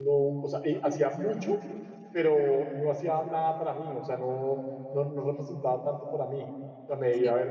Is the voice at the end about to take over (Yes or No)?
No